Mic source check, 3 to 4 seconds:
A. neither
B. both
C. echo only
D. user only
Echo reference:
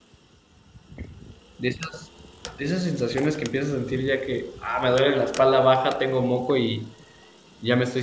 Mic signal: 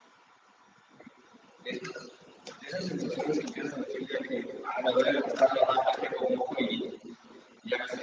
C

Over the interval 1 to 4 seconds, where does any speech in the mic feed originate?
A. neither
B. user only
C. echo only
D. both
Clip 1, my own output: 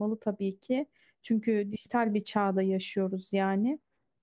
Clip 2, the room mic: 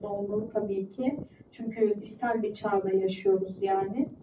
C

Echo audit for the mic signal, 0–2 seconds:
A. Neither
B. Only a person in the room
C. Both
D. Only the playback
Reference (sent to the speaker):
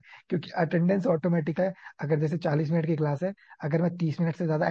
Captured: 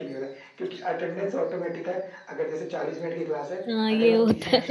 D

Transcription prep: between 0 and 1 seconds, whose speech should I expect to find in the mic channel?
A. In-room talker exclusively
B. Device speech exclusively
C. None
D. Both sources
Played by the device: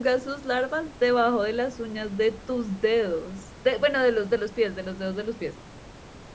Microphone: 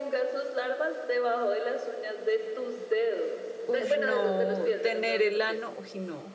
B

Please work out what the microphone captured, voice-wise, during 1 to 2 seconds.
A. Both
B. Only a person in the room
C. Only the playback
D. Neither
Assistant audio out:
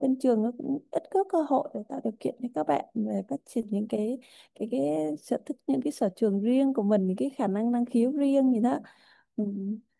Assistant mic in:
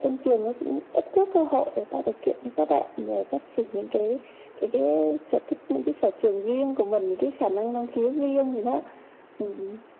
C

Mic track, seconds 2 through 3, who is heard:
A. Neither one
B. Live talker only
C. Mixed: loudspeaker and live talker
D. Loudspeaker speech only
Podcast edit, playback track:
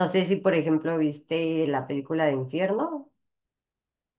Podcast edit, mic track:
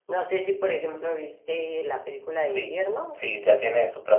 C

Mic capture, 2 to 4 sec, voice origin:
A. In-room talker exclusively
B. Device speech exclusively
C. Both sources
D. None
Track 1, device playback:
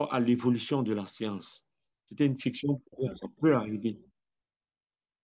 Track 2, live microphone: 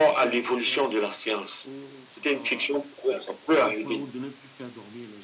C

